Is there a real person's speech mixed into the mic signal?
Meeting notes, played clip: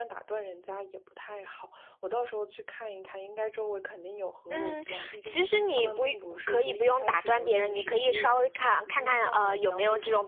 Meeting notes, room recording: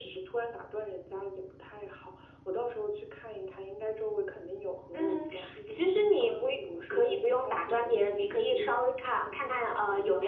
No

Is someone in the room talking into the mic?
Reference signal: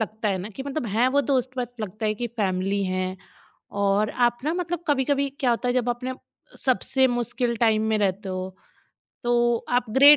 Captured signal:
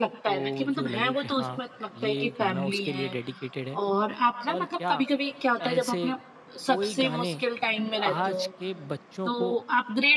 Yes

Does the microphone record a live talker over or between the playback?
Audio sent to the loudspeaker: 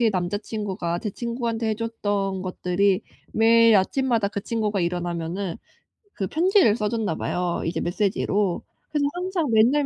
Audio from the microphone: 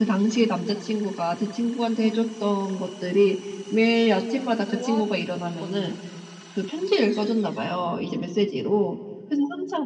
Yes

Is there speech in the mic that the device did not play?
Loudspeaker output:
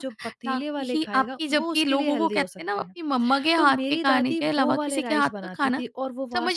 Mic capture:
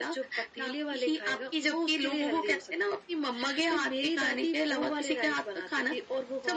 No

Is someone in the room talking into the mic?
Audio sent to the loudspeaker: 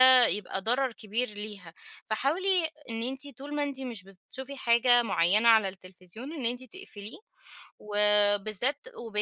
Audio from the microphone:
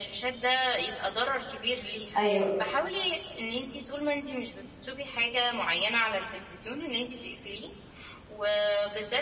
Yes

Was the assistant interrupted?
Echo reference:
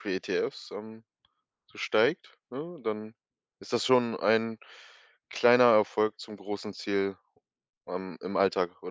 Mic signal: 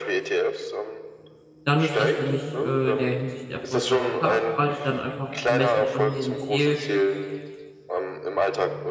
Yes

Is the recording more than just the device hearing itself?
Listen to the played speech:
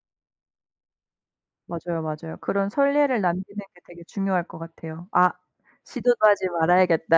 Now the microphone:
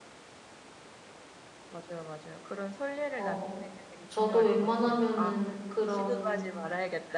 Yes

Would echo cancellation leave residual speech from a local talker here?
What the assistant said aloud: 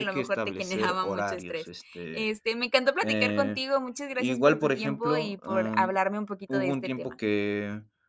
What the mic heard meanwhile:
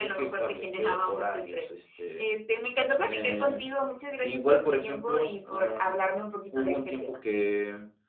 No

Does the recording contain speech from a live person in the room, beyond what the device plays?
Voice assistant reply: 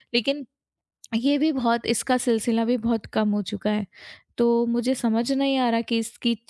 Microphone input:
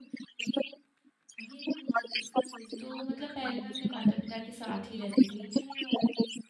Yes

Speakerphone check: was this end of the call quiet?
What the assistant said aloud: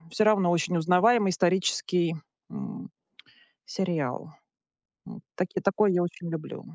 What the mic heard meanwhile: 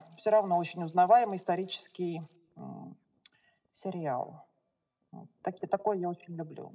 Yes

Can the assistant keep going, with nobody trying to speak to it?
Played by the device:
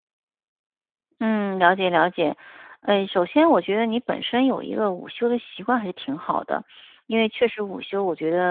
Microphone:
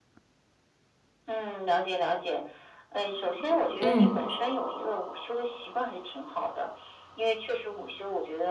No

